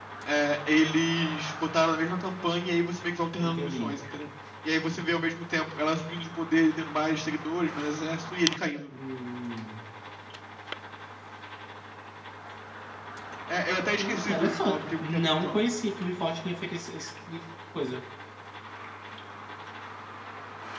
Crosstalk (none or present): present